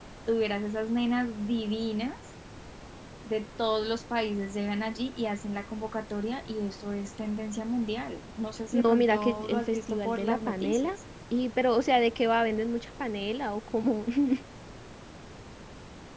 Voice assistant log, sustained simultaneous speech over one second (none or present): present